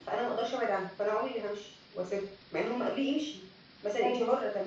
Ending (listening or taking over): listening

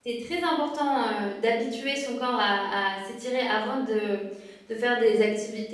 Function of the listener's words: listening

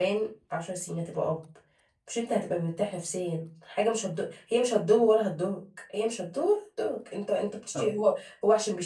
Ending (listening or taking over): listening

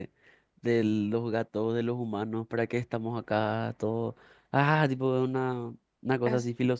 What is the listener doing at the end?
listening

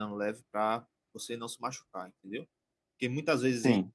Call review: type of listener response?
listening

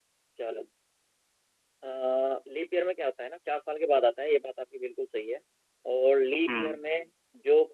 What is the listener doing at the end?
listening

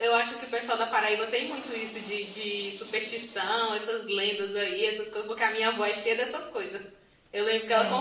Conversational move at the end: listening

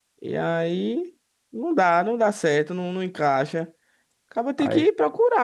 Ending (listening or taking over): listening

